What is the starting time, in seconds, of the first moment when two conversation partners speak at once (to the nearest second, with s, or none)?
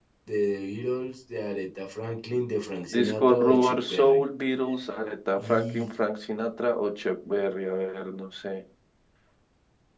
3 s